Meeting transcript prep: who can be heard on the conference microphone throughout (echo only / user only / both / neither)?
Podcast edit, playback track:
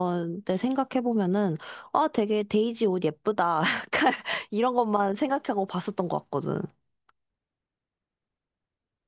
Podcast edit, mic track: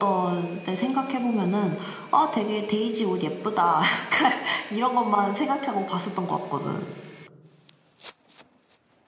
both